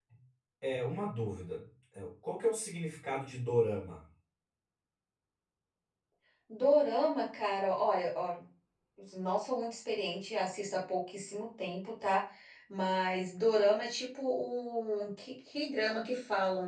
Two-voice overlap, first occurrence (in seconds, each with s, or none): none